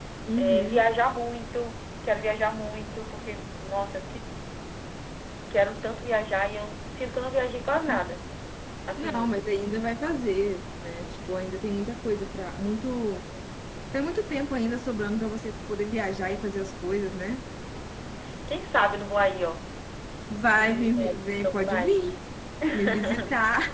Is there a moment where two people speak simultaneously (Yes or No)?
Yes